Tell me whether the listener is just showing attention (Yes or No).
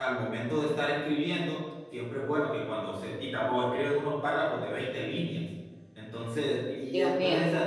Yes